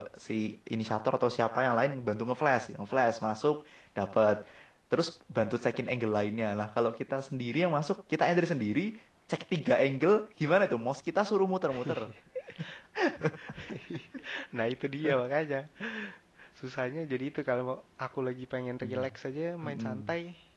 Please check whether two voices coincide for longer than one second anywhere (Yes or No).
No